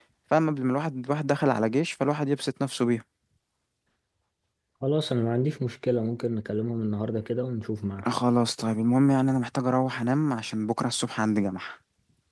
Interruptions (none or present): none